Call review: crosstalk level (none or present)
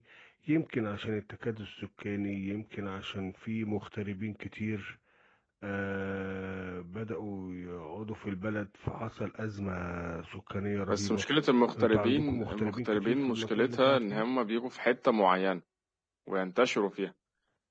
present